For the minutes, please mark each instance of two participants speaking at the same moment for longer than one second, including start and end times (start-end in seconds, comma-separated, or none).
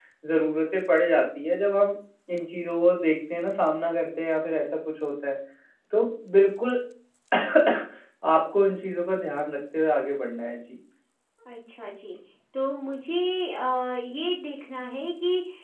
none